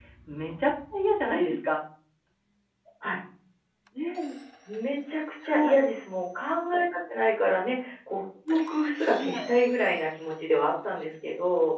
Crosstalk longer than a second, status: none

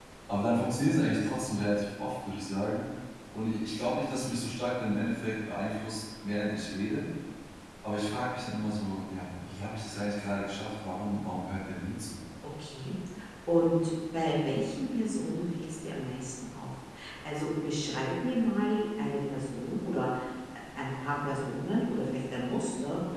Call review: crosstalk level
none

